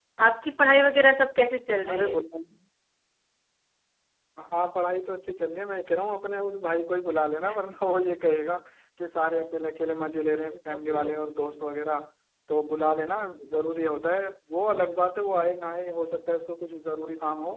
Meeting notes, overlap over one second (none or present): none